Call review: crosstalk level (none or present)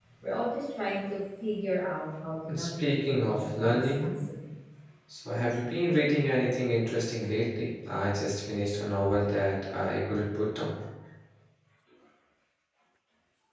present